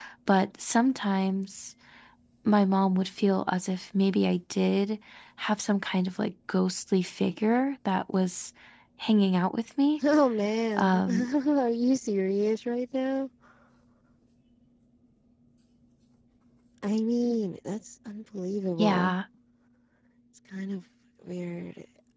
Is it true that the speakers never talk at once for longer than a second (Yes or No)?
Yes